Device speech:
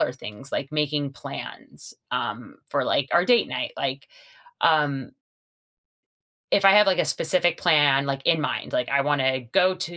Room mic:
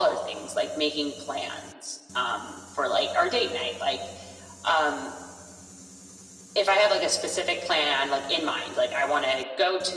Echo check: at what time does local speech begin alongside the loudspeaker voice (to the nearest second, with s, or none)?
none